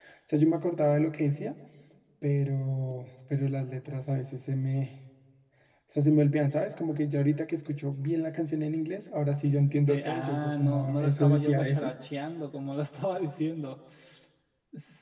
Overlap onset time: 9.4 s

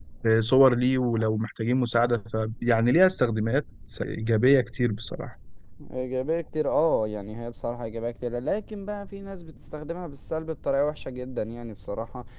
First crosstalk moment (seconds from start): none

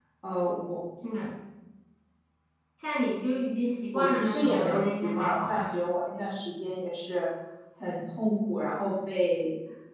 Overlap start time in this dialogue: 3.9 s

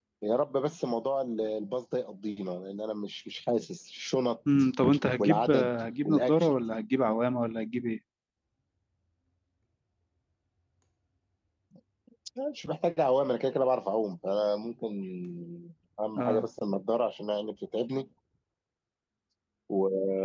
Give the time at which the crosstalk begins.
5.2 s

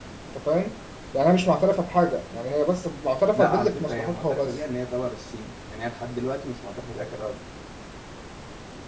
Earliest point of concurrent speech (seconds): 3.4 s

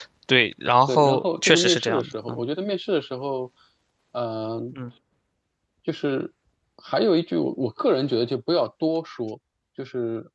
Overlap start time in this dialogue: 0.9 s

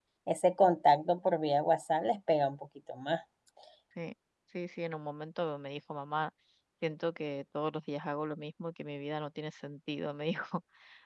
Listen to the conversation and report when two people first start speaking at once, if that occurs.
none

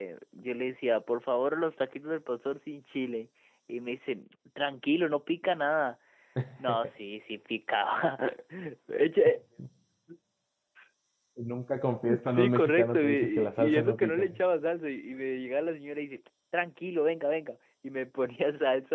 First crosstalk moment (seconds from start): 12.1 s

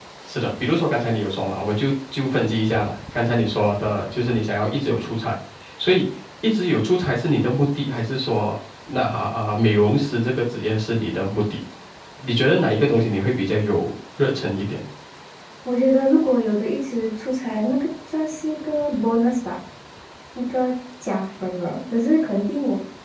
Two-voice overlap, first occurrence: none

